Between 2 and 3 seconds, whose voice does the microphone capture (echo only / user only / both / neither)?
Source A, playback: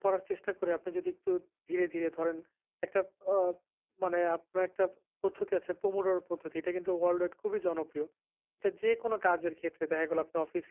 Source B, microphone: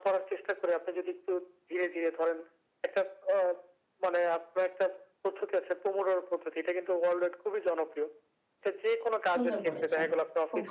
echo only